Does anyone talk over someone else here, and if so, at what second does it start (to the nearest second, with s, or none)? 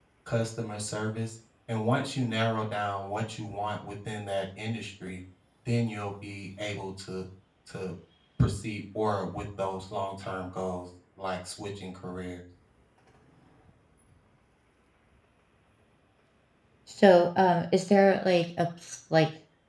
none